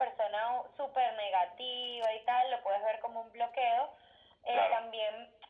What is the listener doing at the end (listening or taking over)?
listening